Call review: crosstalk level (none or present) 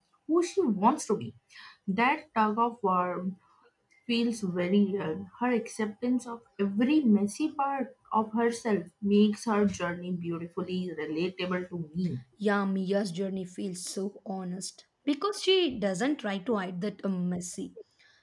none